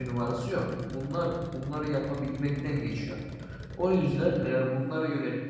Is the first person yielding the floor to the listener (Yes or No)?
No